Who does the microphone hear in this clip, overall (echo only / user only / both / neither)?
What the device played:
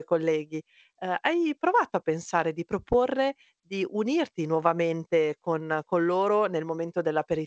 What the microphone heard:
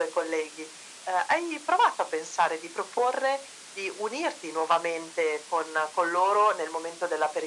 echo only